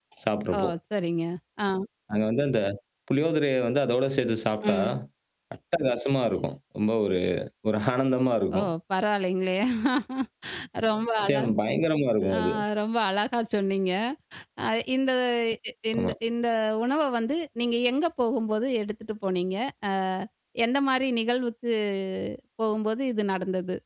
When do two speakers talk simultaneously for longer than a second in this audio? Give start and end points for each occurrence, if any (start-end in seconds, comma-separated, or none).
none